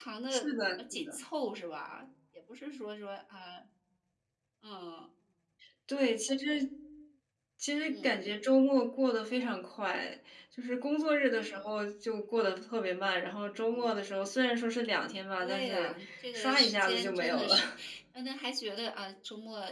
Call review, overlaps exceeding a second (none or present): present